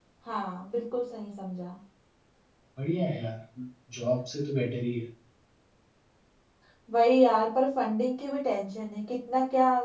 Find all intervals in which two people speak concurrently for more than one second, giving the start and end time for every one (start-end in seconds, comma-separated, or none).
none